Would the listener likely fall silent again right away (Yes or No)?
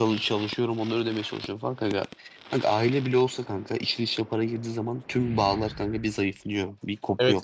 No